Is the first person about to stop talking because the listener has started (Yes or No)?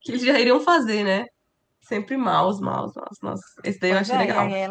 Yes